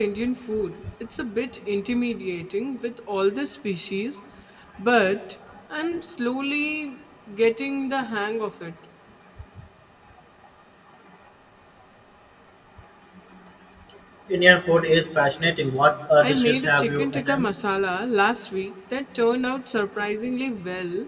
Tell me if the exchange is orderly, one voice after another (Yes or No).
No